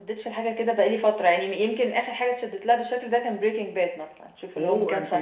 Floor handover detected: Yes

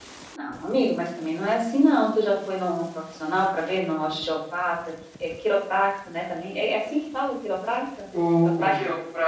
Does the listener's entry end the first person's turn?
Yes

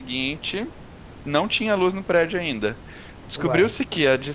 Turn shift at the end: No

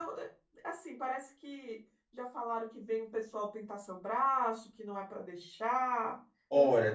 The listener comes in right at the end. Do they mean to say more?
Yes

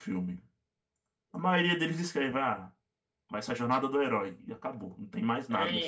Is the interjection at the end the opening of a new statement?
Yes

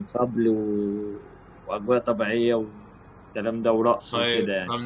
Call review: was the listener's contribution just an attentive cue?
No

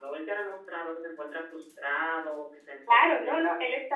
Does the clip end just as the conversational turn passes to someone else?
Yes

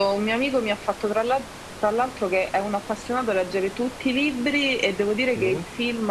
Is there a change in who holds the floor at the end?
No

